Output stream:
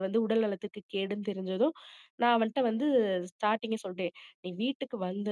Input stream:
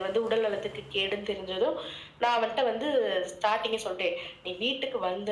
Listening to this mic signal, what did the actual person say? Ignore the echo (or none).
none